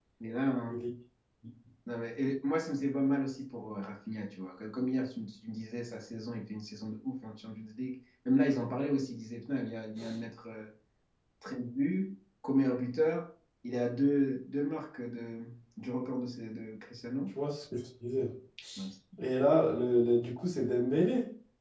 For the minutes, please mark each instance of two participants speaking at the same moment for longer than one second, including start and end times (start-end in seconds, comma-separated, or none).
none